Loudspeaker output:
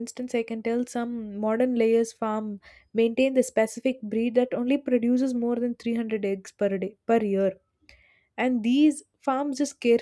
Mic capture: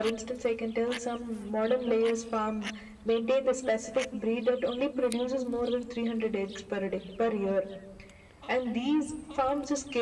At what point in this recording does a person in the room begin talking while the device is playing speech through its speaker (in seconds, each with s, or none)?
none